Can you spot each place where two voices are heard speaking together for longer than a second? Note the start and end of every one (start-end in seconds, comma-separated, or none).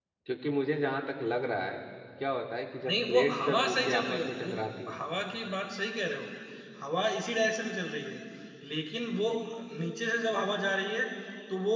2.9-4.5